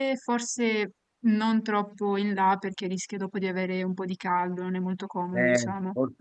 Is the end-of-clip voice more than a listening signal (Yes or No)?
Yes